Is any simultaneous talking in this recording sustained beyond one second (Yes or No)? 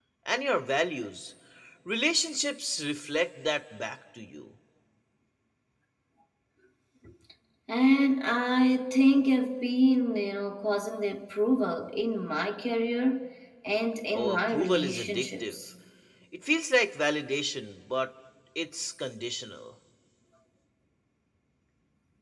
Yes